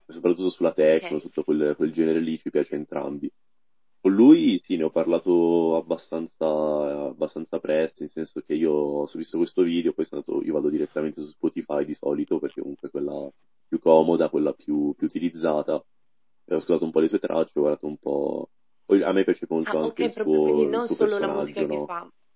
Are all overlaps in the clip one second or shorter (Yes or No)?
No